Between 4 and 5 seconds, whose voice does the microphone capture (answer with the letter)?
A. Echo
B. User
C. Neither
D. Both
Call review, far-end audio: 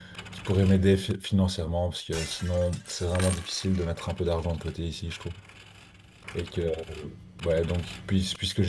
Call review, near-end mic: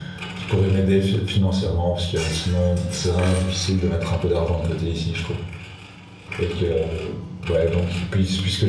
A